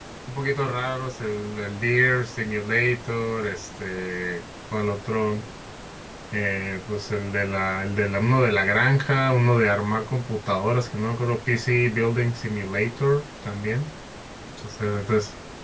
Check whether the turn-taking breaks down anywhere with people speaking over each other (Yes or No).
No